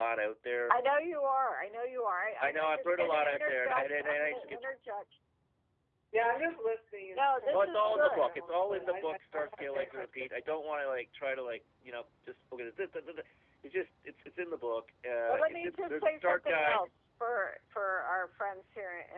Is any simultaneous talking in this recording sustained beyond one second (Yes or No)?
Yes